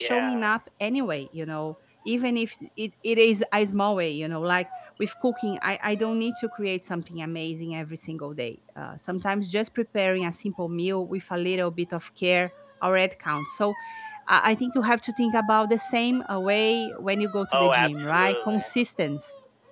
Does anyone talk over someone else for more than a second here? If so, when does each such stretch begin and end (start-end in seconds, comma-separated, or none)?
17.5-18.7